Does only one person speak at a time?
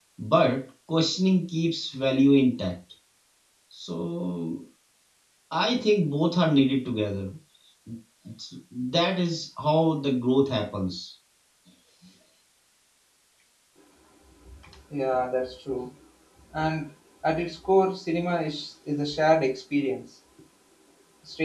Yes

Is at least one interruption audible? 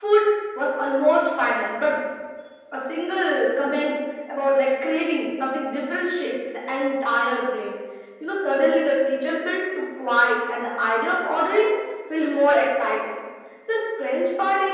No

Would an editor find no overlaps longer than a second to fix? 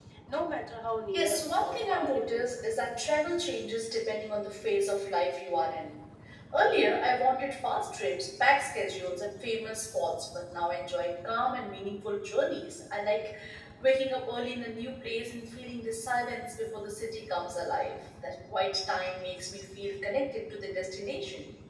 No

